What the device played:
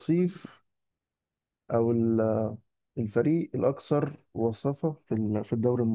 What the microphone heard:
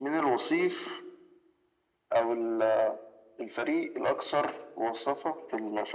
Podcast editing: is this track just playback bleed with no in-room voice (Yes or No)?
Yes